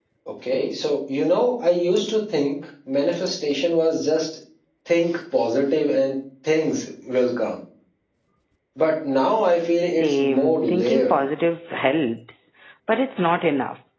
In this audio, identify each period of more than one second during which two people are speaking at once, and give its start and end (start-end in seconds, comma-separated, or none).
9.8-11.2